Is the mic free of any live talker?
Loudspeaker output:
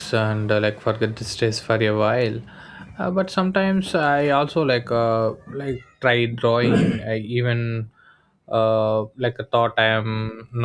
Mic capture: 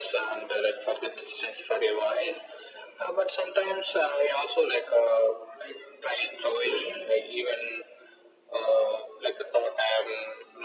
Yes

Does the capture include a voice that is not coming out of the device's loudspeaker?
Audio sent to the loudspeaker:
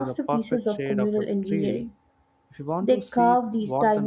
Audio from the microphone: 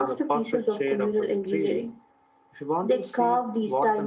No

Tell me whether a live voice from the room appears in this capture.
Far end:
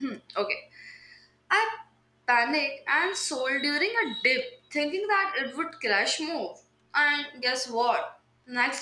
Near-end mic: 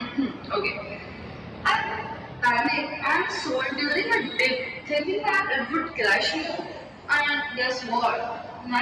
No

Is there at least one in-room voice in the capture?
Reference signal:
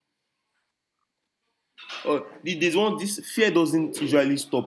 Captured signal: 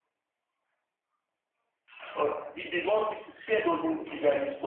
No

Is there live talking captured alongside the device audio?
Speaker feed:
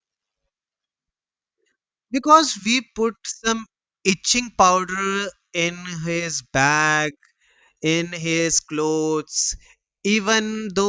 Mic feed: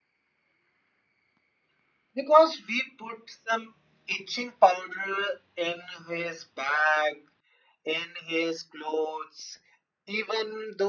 No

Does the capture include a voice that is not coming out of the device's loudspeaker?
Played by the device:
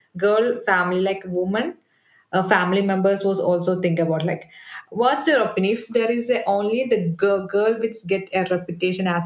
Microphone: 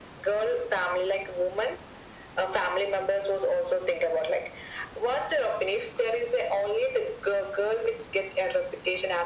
No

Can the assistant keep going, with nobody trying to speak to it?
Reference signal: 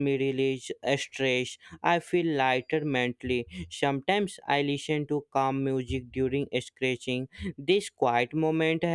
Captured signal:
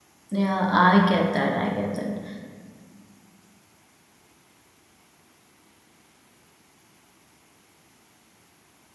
No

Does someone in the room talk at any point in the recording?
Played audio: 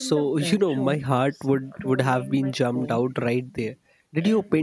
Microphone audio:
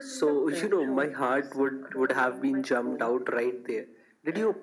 No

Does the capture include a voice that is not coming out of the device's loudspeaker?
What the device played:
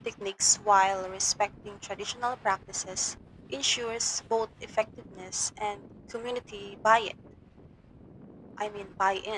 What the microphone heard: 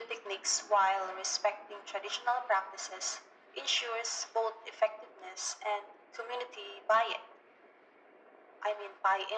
No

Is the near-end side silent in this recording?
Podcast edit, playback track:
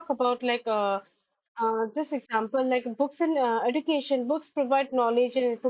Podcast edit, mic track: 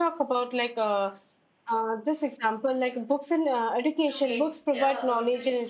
No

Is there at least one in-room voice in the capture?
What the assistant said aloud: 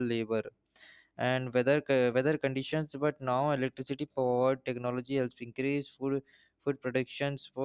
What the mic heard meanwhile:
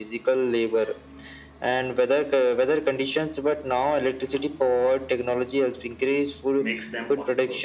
Yes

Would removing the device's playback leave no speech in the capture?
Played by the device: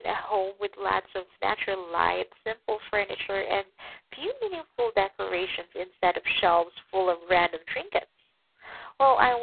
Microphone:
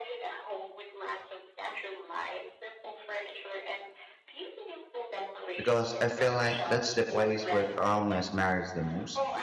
No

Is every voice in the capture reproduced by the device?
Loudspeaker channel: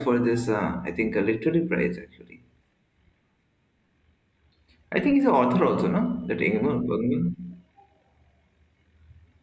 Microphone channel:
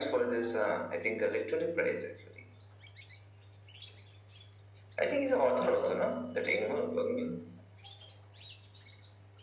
Yes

